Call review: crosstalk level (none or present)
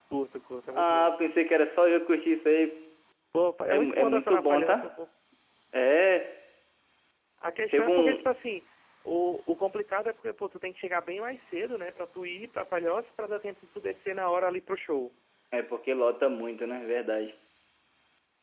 present